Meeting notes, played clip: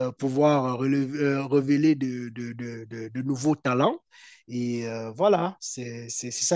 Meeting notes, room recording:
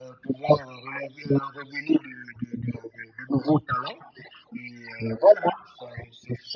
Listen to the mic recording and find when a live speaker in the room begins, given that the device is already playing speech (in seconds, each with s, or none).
none